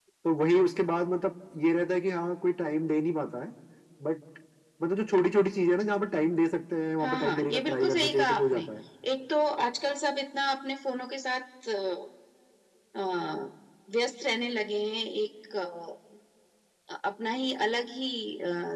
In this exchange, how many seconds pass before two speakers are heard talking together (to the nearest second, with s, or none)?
7 s